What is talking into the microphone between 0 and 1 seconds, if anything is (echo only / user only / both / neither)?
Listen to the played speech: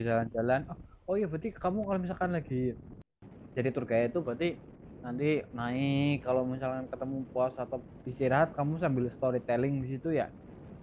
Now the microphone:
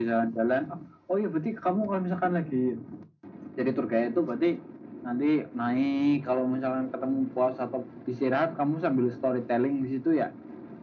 echo only